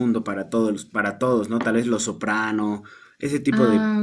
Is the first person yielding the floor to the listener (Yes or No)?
No